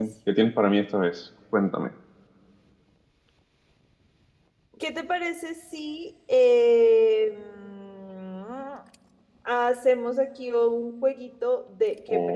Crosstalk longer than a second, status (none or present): none